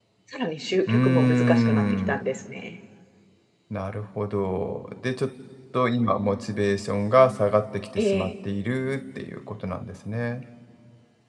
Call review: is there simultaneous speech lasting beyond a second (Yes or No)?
Yes